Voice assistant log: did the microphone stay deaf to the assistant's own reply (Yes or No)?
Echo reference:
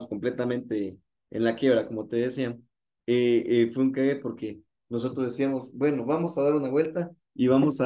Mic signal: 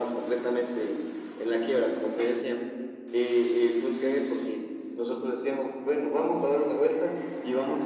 No